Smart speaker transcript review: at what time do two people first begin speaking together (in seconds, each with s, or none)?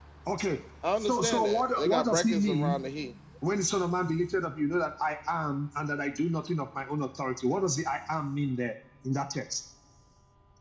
1.0 s